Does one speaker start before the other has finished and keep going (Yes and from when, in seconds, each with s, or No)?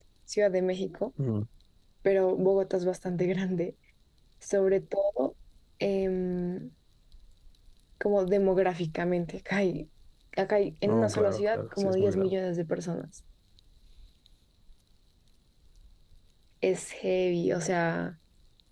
Yes, from 10.9 s